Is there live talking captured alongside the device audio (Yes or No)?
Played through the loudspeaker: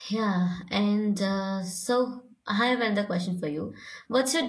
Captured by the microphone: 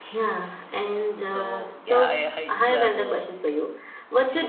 Yes